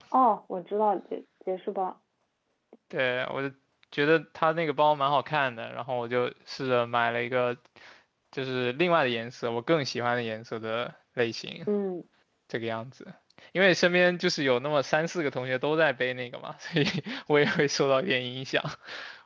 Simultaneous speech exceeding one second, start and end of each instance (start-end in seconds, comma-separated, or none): none